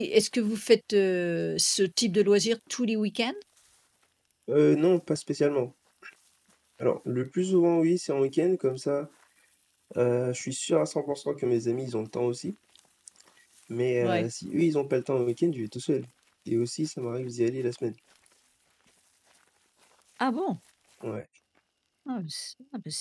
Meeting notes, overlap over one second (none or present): none